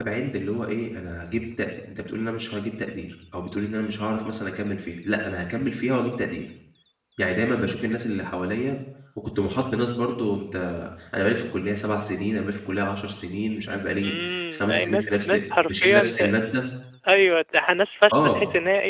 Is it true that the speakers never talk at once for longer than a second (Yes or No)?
No